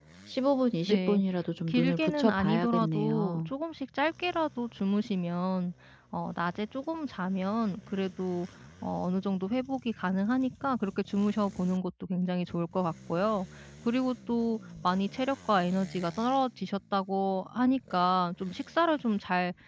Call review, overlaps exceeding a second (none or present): present